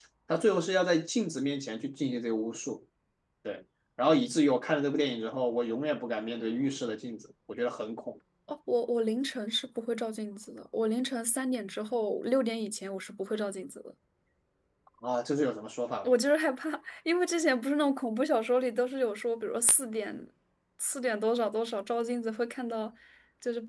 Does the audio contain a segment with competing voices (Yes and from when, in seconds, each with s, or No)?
No